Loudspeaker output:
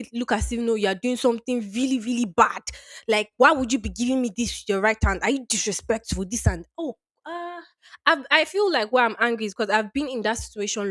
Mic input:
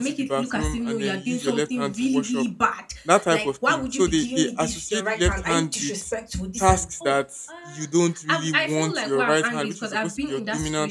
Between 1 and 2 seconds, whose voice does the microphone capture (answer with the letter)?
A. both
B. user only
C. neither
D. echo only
A